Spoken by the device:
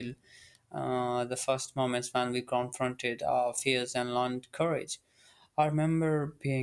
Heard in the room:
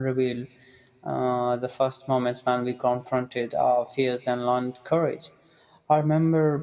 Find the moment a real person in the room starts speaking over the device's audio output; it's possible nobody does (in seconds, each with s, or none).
none